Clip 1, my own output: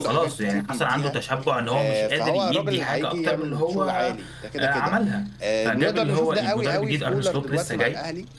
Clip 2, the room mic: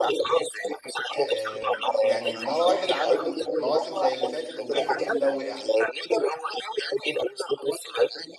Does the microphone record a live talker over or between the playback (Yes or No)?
Yes